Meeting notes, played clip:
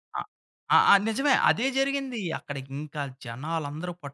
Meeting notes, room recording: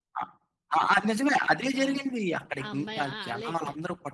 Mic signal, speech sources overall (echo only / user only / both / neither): both